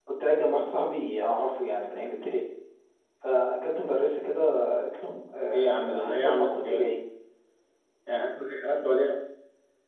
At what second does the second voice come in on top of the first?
5.5 s

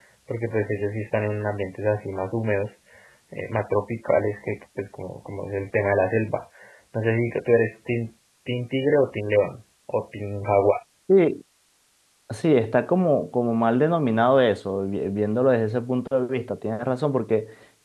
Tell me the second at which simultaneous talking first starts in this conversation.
none

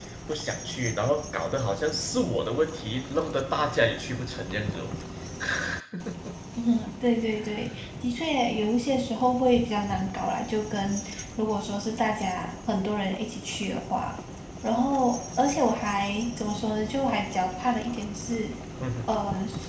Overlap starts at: none

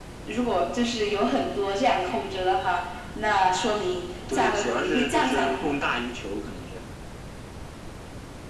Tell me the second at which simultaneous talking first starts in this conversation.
4.2 s

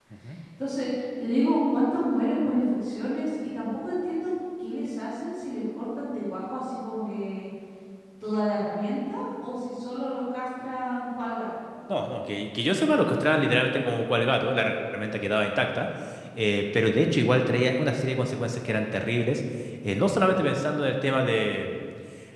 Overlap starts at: none

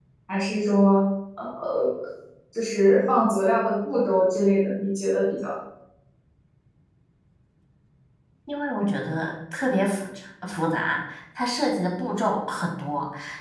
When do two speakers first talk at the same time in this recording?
none

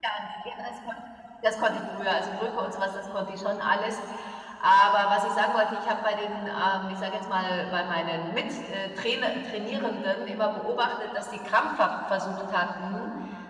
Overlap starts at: none

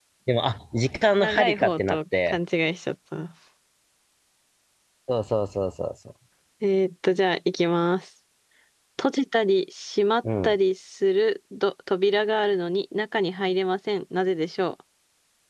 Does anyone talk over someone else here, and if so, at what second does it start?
1.2 s

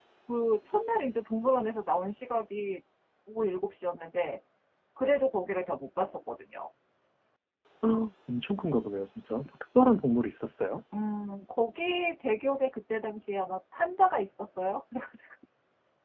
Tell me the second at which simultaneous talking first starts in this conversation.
none

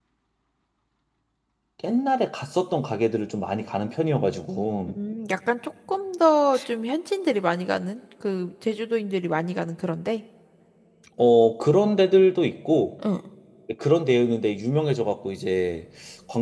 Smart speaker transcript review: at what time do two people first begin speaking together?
none

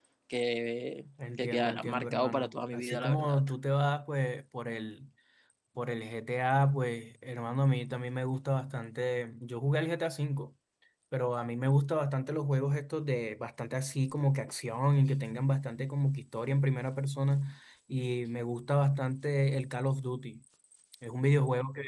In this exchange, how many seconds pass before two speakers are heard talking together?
1.2 s

